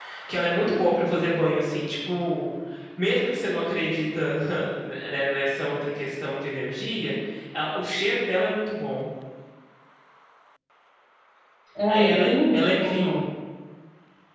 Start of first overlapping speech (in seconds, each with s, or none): 11.9 s